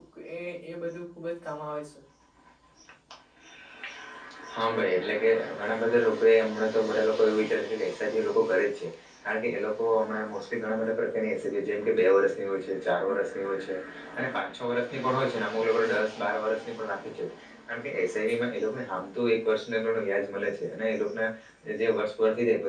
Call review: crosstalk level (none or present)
none